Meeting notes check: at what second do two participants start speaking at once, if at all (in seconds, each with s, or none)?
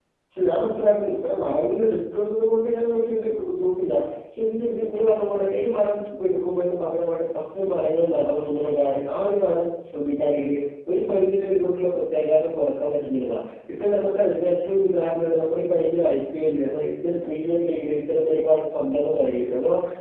none